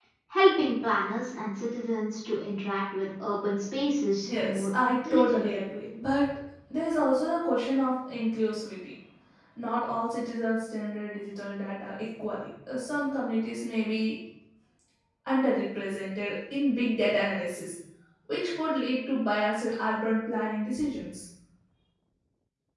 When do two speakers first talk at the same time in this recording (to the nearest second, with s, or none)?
4 s